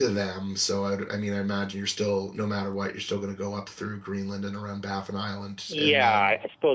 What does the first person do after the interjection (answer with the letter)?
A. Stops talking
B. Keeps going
A